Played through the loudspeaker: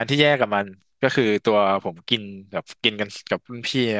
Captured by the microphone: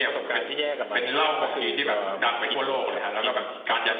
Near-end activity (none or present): present